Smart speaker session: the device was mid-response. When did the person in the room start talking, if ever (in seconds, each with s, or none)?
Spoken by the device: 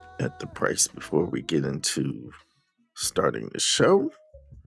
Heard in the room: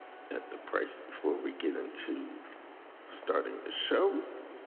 none